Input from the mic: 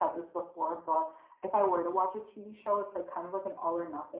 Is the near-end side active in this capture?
No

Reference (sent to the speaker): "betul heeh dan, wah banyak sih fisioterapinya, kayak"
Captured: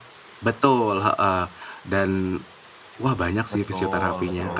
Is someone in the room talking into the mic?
Yes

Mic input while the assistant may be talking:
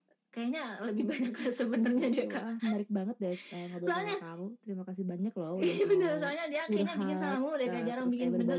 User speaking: No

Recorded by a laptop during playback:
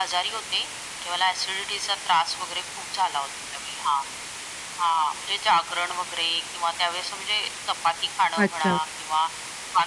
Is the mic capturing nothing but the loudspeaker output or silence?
No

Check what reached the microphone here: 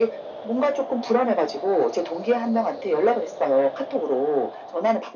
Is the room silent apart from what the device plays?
Yes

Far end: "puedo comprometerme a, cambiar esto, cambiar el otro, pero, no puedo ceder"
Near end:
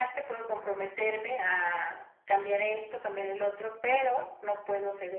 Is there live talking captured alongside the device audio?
Yes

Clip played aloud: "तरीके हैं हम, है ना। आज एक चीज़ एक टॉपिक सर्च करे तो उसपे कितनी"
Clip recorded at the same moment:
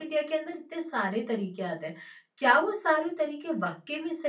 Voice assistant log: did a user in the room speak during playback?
Yes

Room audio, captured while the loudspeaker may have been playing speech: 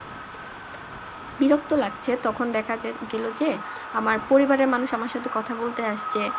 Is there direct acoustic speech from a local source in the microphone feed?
Yes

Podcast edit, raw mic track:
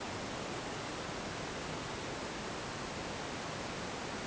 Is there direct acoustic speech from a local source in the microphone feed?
No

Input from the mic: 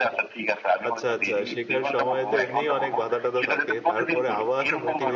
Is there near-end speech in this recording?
Yes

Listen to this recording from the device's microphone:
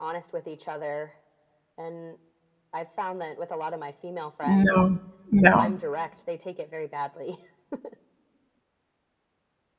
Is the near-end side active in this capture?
Yes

